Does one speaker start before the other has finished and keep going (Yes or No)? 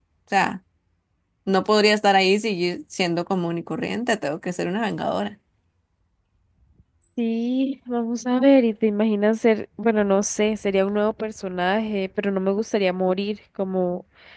No